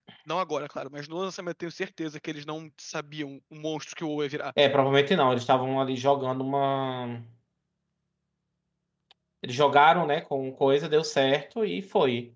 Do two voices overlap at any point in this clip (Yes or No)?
No